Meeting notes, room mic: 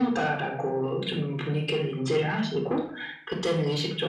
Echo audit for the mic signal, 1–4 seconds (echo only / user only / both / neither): echo only